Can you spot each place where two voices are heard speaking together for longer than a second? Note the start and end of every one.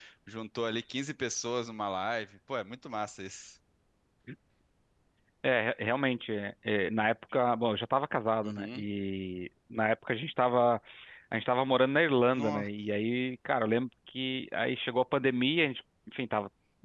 none

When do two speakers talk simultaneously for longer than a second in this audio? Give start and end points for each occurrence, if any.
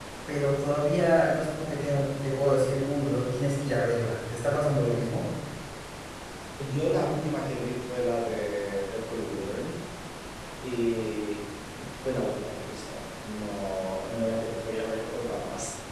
none

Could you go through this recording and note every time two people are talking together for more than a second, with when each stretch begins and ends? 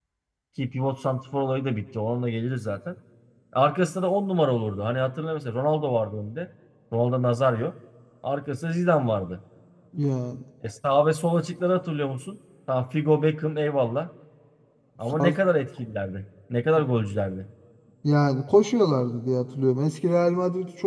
none

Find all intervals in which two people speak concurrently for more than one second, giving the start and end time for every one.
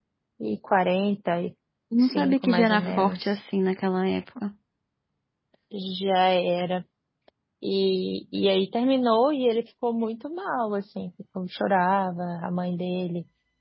2.0-3.4

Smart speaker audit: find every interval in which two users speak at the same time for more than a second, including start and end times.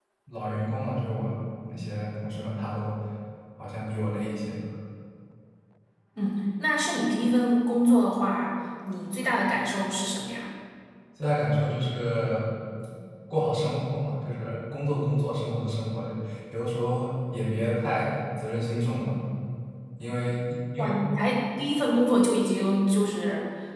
none

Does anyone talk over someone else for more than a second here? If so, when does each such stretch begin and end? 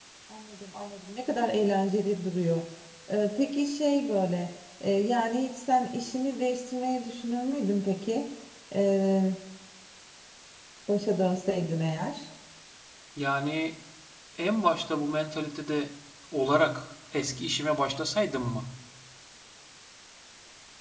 none

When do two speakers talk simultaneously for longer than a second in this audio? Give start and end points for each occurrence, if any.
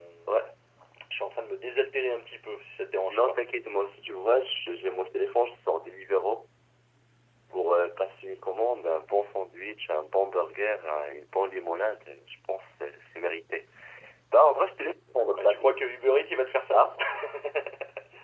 none

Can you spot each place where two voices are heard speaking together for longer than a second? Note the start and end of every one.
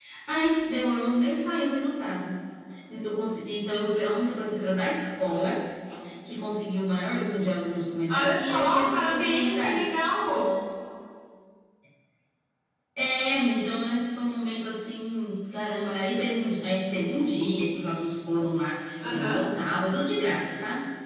8.1-9.8

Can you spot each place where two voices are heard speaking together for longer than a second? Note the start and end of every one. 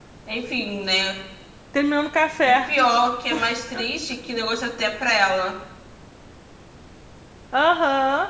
none

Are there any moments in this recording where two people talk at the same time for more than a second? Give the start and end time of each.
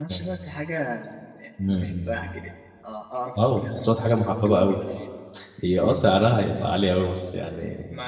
3.5-4.8

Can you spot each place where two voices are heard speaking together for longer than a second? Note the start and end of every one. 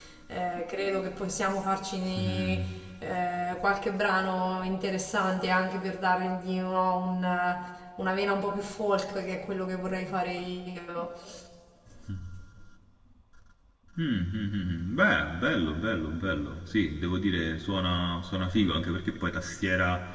none

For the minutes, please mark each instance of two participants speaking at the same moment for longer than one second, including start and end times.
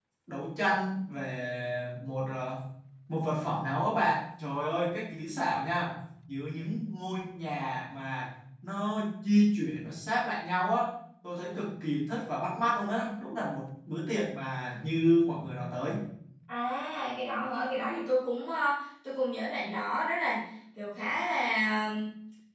none

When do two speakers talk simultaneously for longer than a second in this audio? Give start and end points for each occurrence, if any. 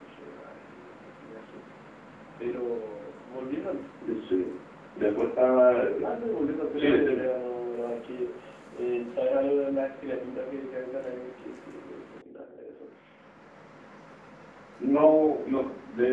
none

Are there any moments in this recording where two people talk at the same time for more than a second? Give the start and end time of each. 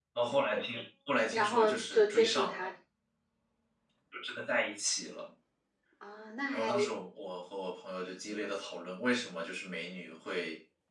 1.3-2.7

